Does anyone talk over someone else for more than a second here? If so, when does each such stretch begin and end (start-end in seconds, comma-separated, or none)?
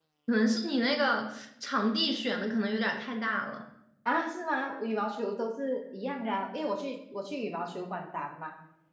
none